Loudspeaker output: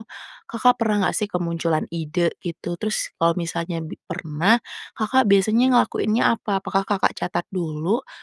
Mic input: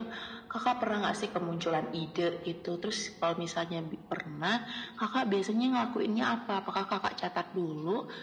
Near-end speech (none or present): none